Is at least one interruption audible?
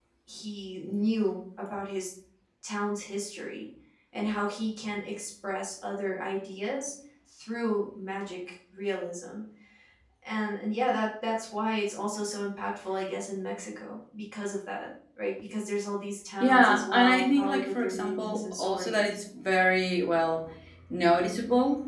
Yes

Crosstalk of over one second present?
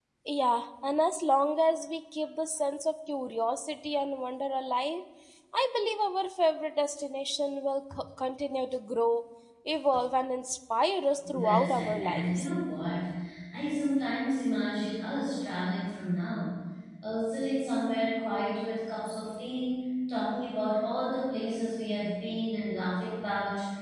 Yes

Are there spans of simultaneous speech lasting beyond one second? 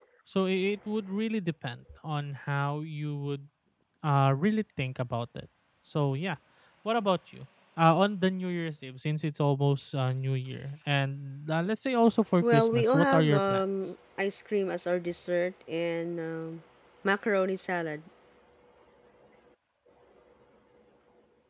Yes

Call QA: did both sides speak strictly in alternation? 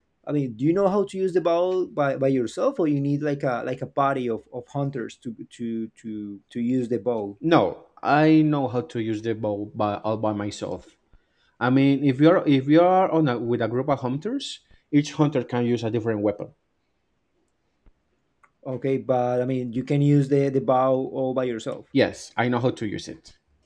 Yes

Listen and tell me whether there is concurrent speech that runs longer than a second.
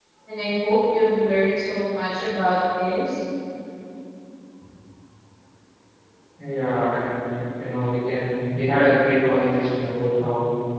No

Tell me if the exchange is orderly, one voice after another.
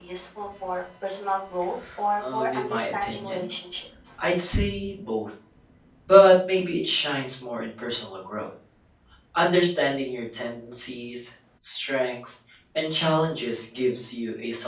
No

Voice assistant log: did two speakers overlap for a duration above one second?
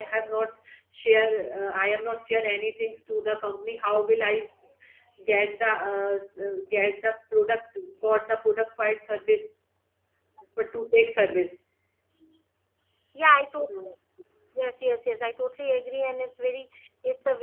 No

